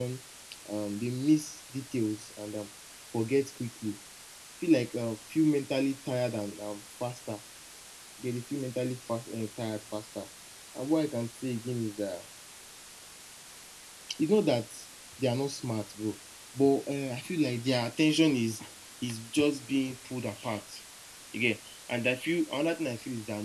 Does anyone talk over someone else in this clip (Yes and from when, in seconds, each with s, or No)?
No